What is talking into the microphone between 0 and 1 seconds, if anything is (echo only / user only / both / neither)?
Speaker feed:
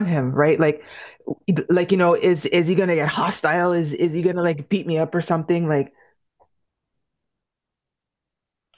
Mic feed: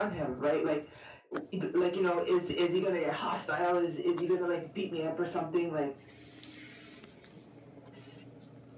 echo only